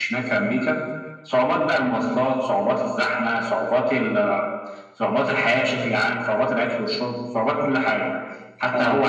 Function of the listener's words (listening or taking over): listening